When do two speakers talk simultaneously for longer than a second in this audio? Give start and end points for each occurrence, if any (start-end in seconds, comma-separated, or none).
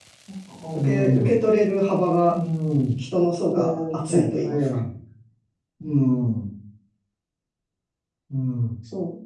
3.5-4.8